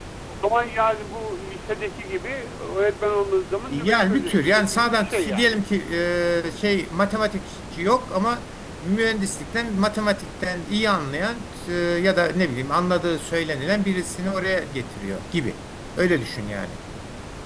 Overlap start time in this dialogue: 3.7 s

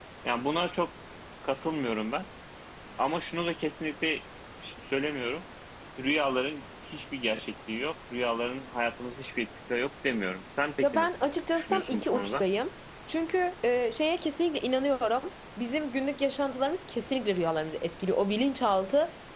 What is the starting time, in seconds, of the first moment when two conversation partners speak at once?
10.8 s

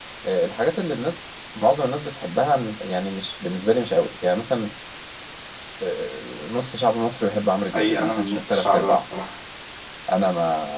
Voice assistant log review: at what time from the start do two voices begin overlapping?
7.7 s

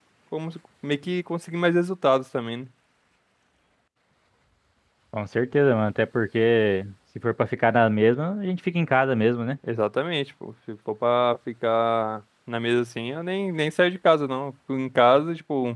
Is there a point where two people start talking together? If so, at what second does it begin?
none

